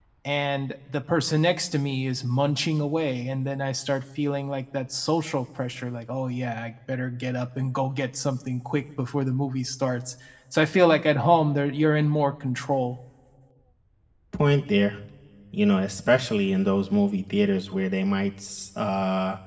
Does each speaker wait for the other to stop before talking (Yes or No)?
Yes